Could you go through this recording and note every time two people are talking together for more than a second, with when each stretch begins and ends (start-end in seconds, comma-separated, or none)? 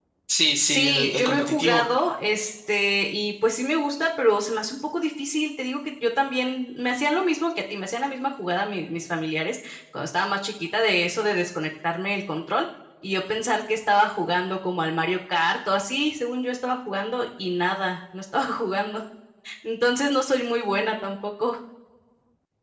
0.7-1.9